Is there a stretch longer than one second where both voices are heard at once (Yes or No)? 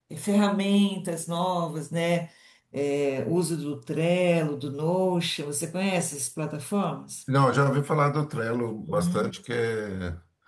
No